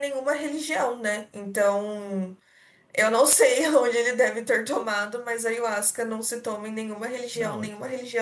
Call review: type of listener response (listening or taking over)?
listening